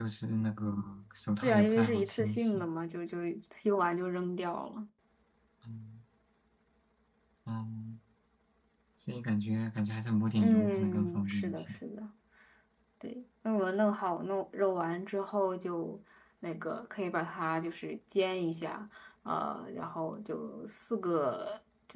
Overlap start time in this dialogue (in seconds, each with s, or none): 1.4 s